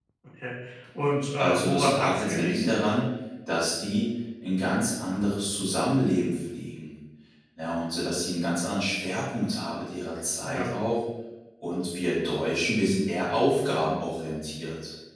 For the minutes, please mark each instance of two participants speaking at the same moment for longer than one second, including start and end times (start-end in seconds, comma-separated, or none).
1.4-2.7